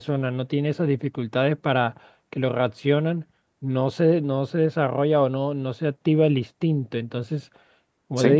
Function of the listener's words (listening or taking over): listening